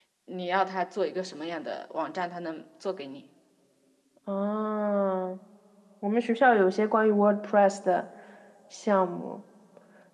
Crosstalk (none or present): none